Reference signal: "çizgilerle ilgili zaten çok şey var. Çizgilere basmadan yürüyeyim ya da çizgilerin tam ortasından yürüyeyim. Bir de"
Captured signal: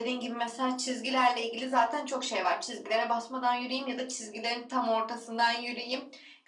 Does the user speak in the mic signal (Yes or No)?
No